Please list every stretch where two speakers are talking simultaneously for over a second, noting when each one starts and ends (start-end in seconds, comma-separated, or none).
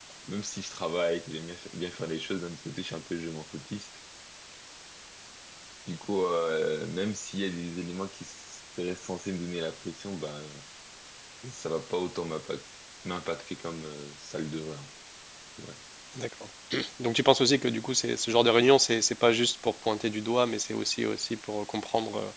none